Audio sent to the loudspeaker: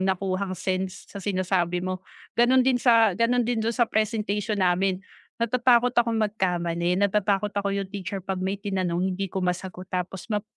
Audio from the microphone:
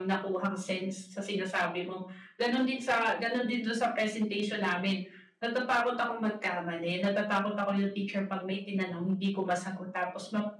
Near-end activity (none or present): none